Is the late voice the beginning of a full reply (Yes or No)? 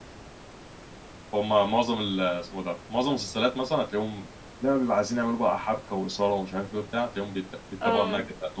No